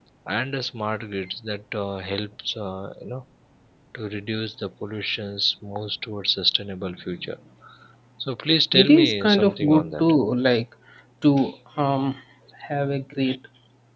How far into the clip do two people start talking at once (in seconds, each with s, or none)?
8.7 s